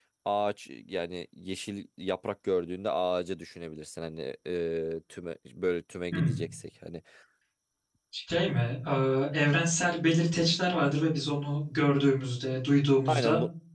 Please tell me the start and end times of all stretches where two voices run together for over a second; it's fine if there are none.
none

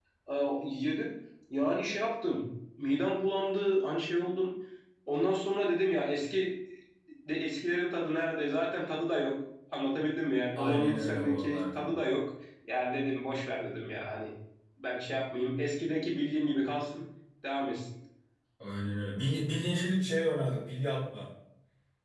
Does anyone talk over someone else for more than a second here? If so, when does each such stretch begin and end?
10.5-11.9

